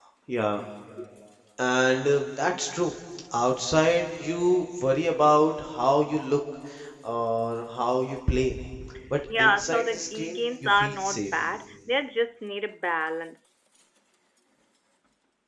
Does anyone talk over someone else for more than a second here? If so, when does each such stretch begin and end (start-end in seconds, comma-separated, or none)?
9.4-11.3